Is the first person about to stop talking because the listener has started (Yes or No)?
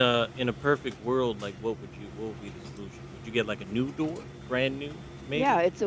Yes